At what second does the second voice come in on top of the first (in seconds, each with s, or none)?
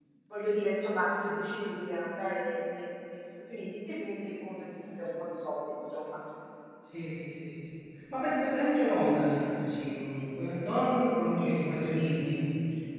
none